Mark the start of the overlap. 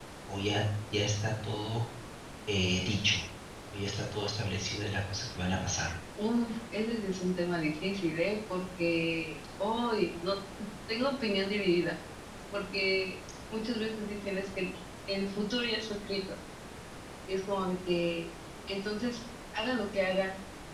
none

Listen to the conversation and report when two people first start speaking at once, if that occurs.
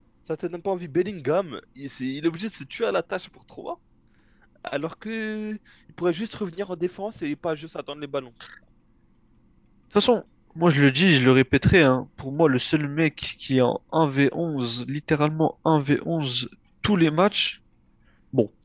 none

